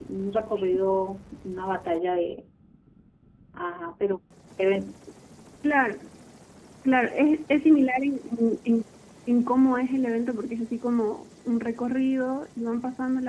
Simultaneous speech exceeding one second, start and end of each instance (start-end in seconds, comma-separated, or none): none